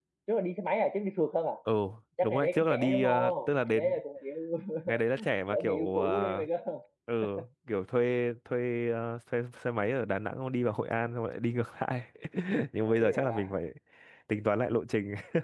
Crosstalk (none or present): present